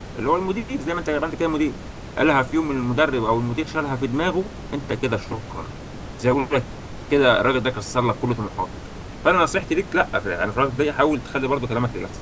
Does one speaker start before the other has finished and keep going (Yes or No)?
No